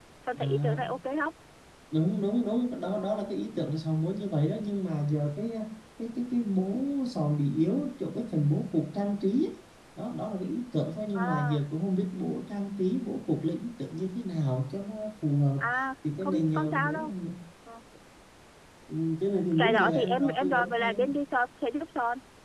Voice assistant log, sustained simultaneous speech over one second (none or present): present